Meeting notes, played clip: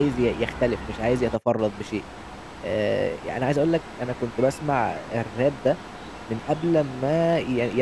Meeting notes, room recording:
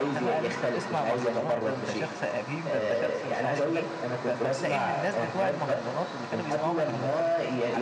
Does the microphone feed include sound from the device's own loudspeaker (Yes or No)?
Yes